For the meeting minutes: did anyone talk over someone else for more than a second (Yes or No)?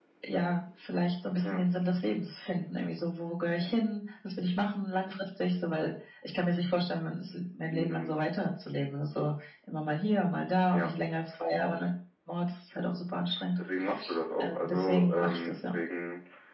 Yes